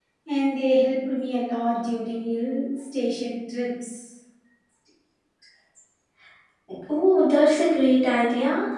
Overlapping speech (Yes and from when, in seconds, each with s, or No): No